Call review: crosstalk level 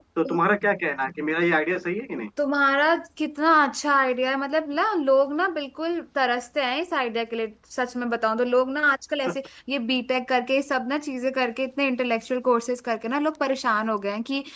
none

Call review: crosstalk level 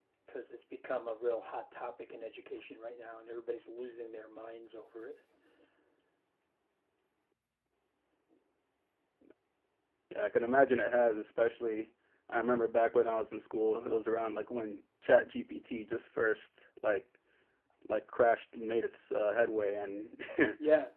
none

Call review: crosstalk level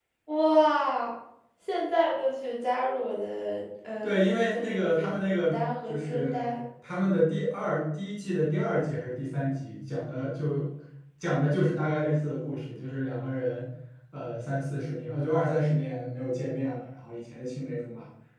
present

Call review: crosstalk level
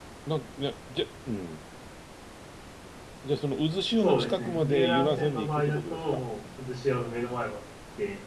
present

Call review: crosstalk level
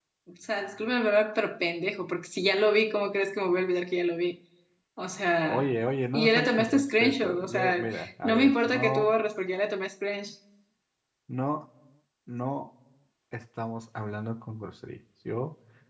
present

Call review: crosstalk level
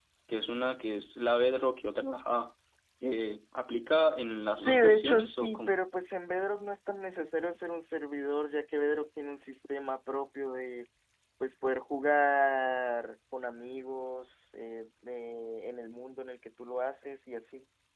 present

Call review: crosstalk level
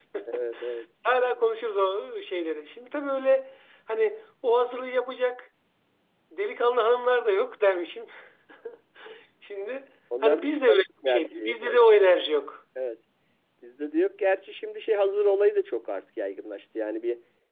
present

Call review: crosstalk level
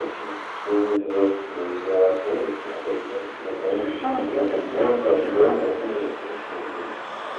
present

